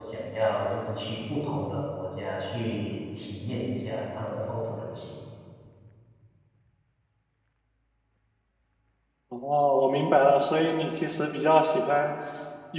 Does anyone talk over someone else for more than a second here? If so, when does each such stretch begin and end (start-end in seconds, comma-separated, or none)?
none